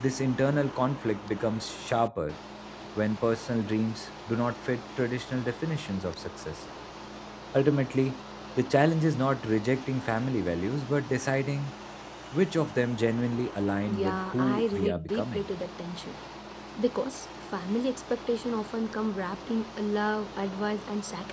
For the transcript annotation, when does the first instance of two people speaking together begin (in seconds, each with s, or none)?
13.9 s